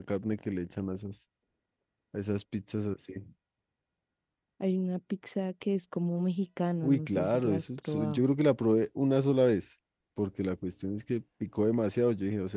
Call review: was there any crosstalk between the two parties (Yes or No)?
Yes